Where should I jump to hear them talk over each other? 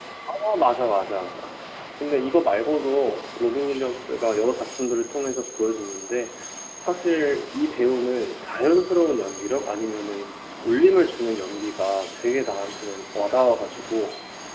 none

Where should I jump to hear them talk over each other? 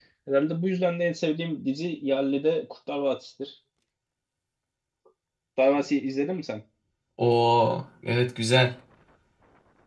none

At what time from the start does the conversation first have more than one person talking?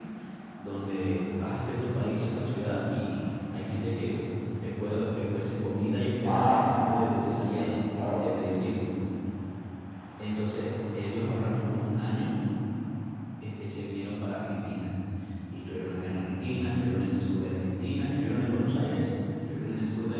6 s

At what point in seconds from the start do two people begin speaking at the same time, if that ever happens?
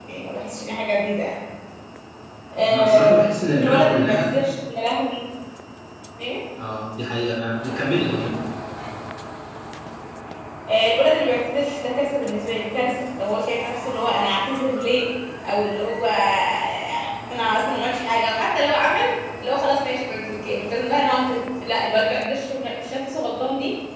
3 s

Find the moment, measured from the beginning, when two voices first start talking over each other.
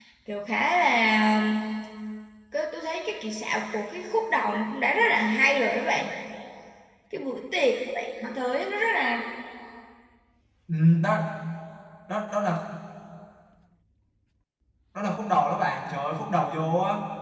none

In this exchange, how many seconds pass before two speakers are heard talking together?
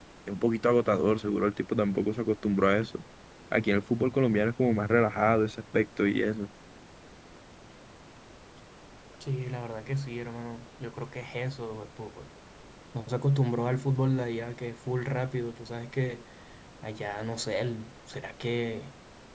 none

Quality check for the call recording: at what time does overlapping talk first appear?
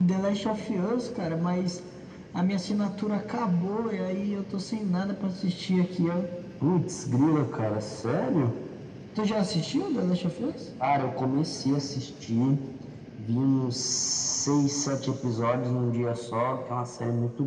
none

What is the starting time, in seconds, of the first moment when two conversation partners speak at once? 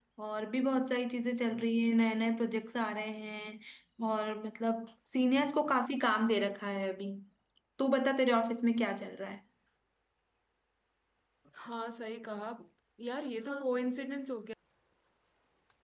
none

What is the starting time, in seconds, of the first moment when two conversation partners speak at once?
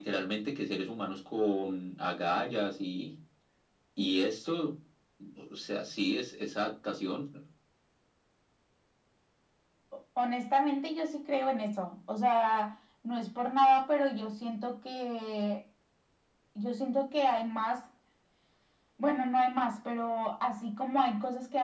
none

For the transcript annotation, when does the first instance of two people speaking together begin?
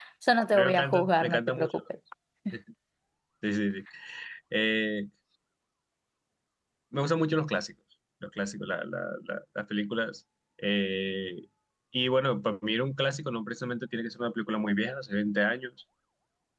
1 s

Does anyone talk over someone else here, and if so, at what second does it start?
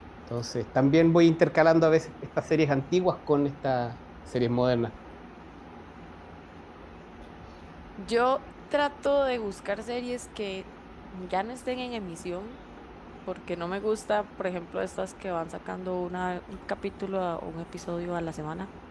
none

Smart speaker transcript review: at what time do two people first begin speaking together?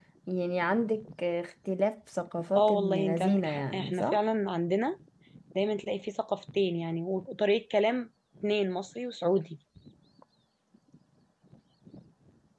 3 s

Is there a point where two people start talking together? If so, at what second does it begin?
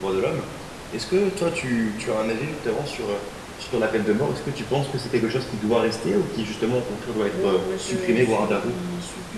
7 s

